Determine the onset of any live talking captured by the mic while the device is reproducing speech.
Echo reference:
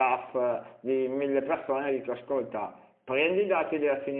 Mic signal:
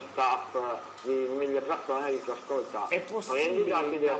2.9 s

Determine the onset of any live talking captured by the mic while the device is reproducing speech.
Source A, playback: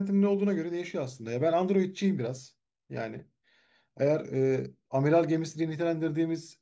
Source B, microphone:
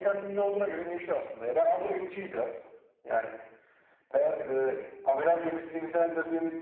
none

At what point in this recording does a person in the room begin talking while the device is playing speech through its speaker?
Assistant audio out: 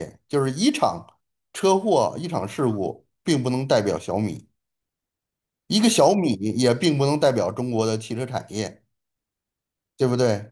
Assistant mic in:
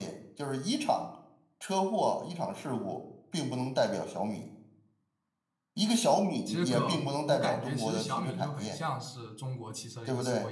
6.4 s

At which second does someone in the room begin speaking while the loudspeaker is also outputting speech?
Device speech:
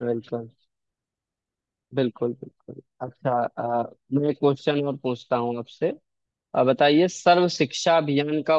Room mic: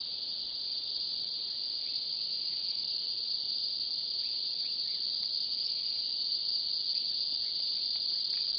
none

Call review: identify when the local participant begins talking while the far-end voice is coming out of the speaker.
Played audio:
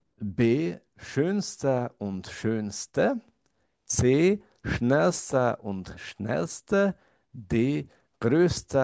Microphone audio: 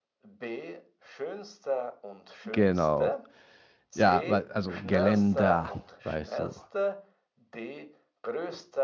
2.4 s

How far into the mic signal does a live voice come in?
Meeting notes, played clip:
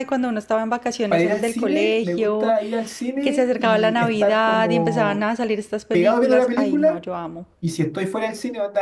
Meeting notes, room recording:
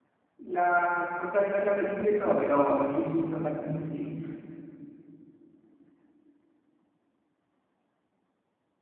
0.4 s

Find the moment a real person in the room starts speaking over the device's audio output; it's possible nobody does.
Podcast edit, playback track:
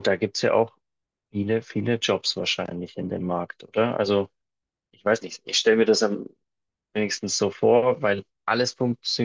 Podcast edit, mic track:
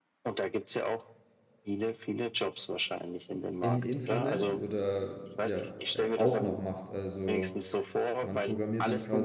3.6 s

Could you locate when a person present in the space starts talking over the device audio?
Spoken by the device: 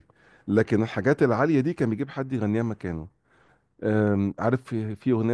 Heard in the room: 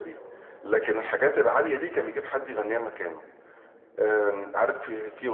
none

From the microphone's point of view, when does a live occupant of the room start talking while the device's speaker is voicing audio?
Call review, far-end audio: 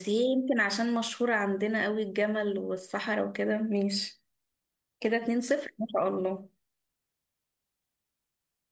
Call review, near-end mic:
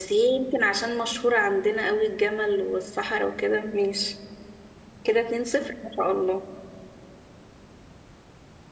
none

